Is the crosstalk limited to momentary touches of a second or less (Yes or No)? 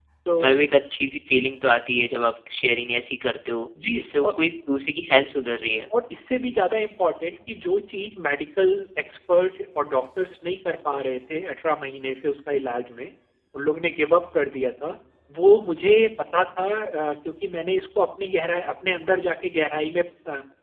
Yes